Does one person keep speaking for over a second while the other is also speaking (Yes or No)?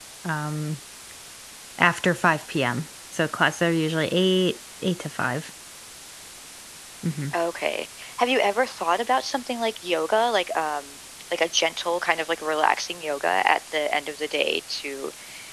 No